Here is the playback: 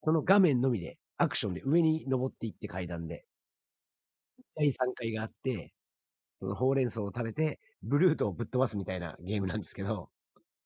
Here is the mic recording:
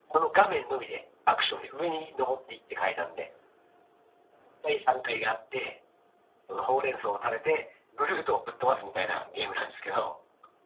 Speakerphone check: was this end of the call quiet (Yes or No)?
Yes